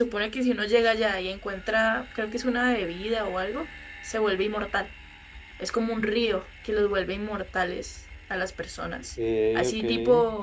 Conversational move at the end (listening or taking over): listening